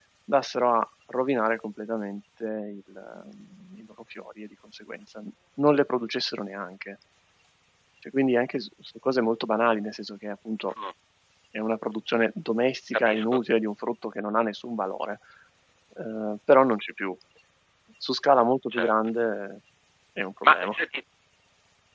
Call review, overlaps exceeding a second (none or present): none